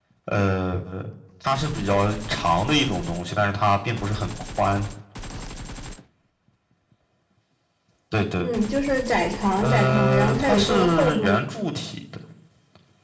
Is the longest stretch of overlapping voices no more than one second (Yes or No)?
No